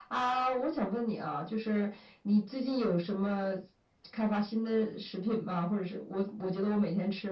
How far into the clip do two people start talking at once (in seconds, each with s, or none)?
none